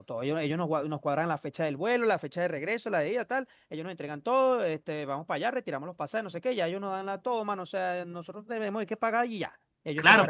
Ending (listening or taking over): taking over